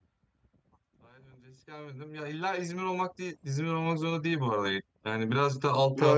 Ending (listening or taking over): taking over